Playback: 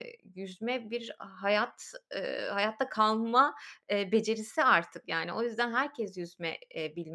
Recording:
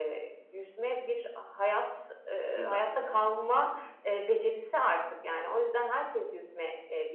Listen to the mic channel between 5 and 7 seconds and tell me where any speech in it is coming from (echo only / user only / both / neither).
echo only